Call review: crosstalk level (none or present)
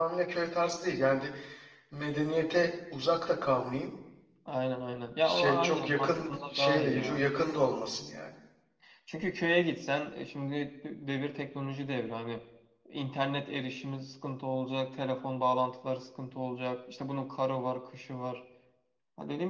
present